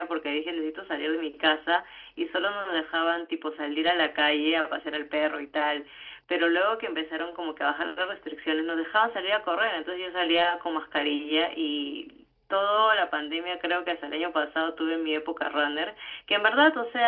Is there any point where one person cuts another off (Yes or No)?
No